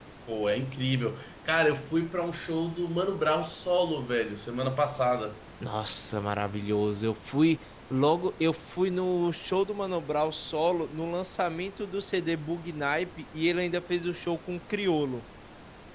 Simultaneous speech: No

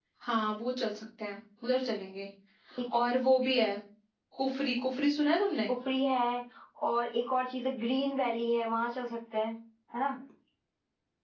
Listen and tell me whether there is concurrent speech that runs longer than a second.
No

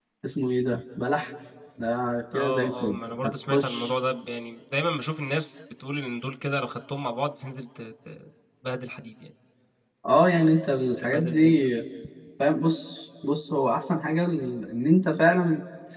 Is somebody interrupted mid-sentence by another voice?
Yes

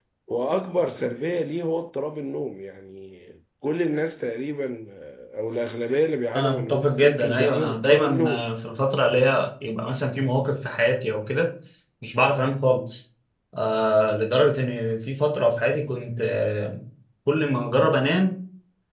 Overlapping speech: Yes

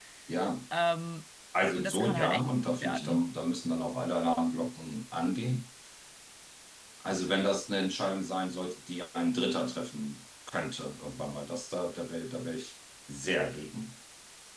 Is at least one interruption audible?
Yes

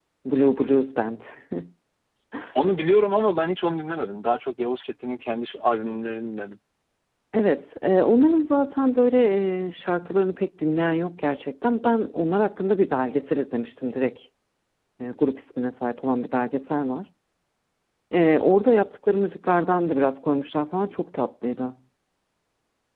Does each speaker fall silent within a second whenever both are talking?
Yes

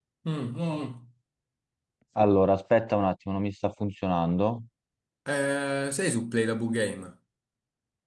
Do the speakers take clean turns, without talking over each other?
Yes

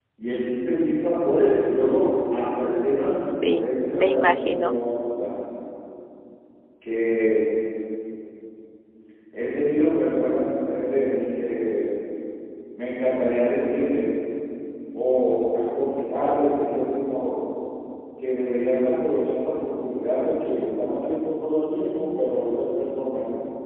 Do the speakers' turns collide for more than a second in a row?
Yes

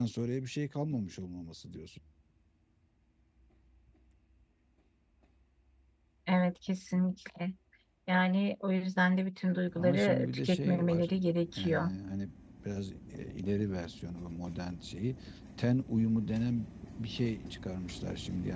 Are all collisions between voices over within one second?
No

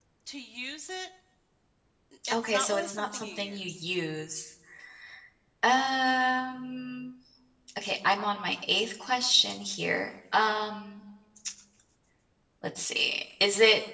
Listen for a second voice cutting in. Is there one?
Yes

